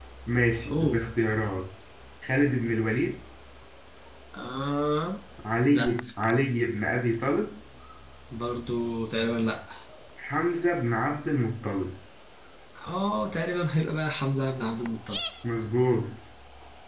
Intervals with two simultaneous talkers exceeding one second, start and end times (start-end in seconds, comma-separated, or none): none